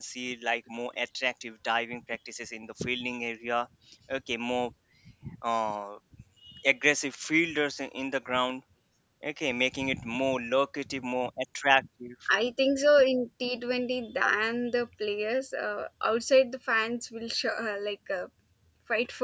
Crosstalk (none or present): none